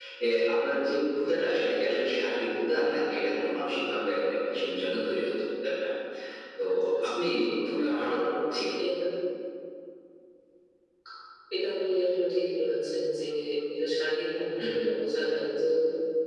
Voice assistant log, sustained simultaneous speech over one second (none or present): none